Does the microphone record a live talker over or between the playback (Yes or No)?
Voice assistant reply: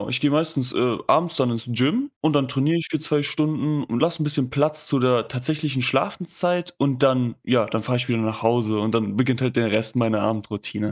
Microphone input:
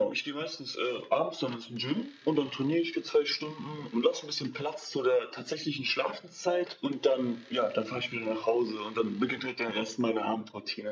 No